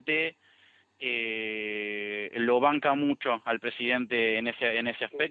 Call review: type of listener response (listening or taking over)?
taking over